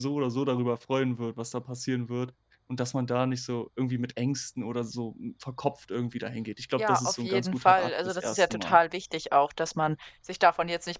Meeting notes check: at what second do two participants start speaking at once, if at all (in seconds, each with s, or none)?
6.8 s